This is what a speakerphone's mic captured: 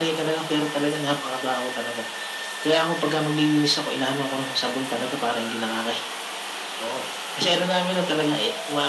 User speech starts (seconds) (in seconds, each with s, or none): none